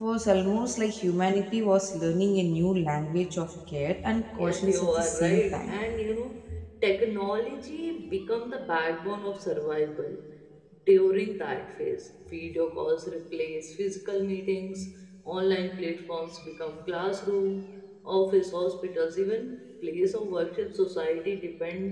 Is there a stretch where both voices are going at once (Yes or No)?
Yes